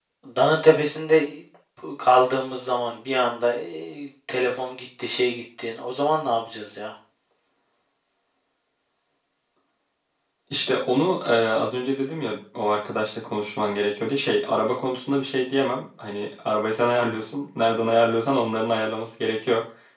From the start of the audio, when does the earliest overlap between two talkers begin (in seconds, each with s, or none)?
none